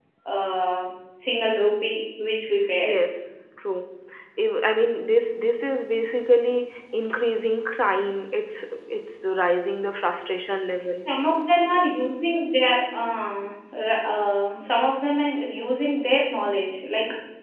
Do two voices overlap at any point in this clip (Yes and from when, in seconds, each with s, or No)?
No